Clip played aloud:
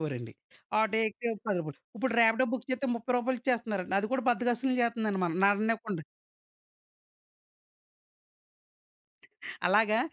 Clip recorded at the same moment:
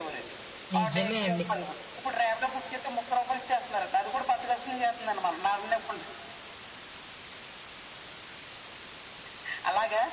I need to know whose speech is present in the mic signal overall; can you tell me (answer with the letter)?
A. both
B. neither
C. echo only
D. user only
A